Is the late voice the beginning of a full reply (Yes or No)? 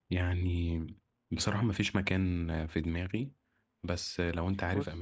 No